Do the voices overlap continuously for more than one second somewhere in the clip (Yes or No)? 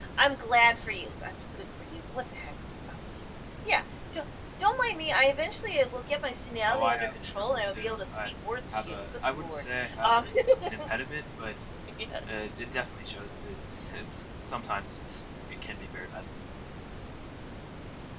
Yes